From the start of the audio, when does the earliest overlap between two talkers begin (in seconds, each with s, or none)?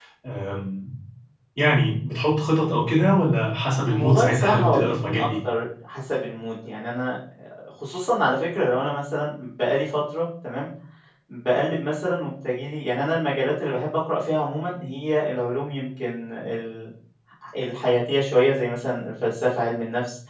3.8 s